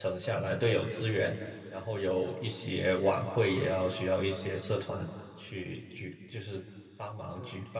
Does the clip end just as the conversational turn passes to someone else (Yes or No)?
Yes